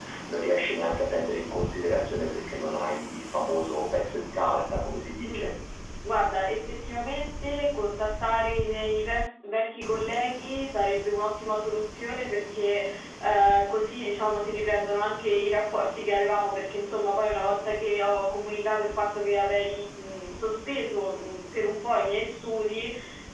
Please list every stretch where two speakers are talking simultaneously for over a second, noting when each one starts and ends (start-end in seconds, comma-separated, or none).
none